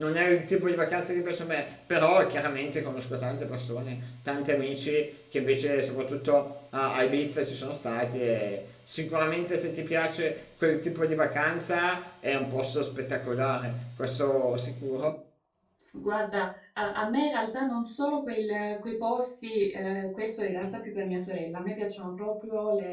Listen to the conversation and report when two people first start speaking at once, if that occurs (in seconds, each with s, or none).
none